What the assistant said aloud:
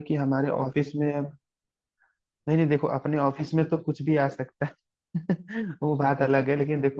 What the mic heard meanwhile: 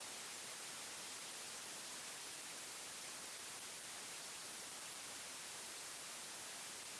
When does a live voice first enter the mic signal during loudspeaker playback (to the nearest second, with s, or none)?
none